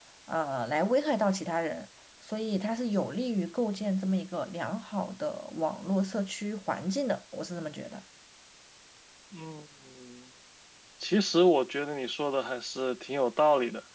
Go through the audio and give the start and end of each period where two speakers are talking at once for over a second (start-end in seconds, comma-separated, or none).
none